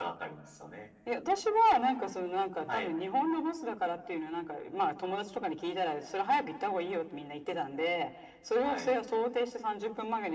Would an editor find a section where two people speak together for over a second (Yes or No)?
No